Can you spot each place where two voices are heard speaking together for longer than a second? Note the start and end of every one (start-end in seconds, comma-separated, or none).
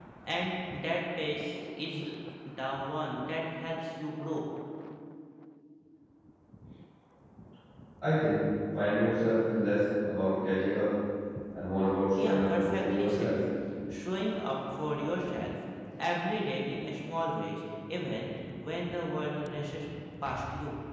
12.2-13.4